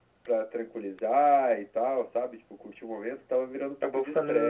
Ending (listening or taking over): taking over